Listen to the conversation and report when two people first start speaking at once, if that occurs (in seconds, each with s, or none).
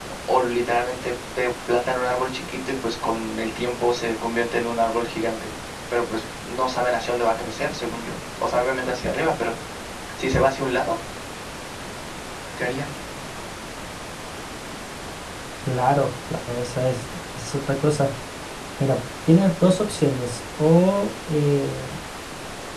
none